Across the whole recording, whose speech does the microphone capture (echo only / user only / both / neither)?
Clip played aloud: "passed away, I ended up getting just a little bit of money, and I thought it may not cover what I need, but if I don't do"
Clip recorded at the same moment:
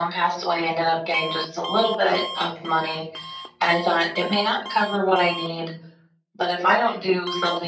echo only